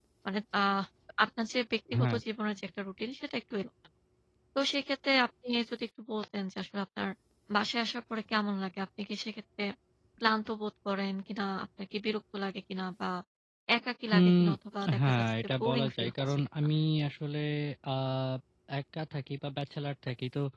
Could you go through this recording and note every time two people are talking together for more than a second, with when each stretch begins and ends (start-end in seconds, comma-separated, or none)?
15.1-16.4